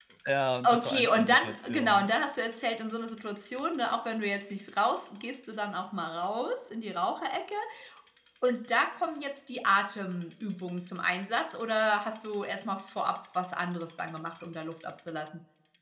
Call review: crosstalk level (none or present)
present